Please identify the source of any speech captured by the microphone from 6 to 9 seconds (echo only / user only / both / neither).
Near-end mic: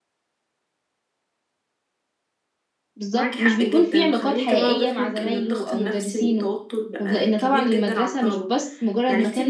both